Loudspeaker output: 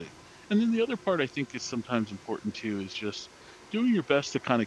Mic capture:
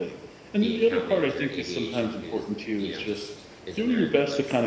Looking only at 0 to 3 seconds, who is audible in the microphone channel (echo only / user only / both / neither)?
both